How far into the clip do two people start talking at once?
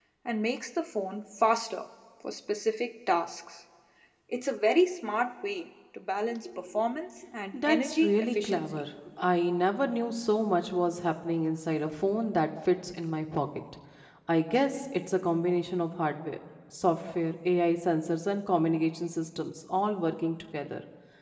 7.5 s

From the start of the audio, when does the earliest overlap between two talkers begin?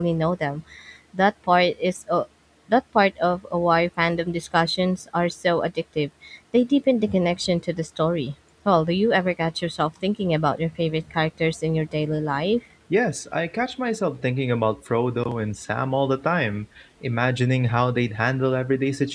none

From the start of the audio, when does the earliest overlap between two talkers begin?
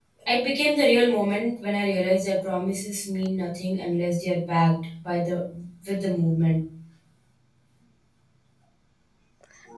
none

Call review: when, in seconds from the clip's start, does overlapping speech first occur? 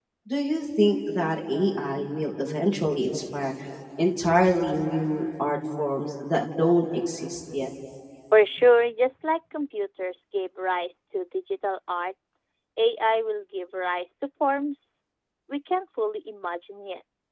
none

